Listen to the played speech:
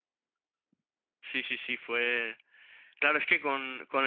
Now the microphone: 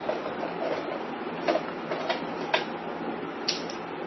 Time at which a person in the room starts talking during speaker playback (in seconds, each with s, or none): none